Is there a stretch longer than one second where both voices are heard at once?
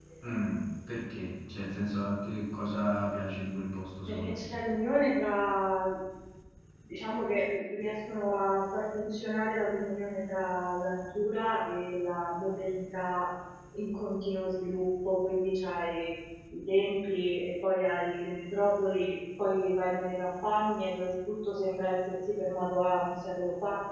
No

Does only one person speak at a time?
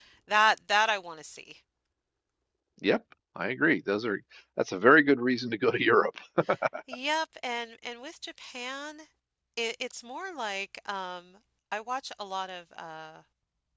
Yes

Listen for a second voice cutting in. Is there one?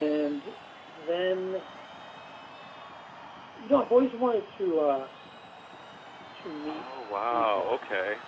Yes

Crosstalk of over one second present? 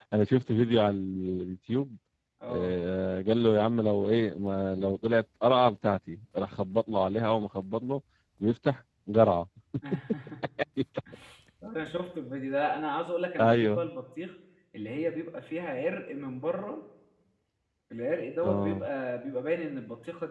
No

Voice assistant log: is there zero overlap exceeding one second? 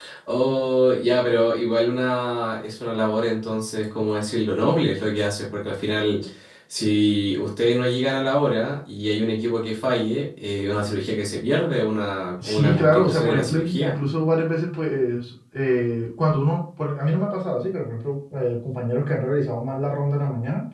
No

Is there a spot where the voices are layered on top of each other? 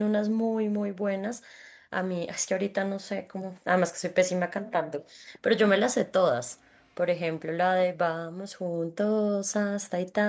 No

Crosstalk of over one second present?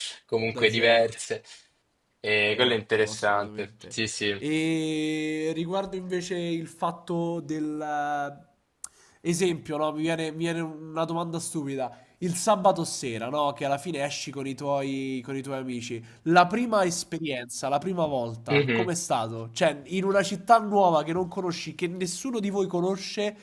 Yes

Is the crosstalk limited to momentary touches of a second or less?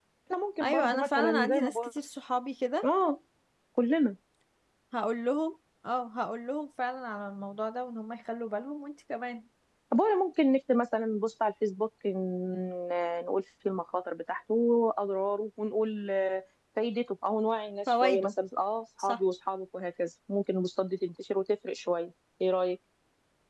No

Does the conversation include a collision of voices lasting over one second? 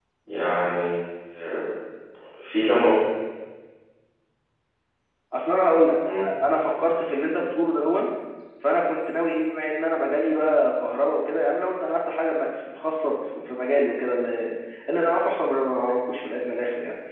No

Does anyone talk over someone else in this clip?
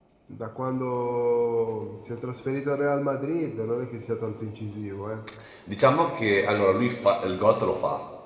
No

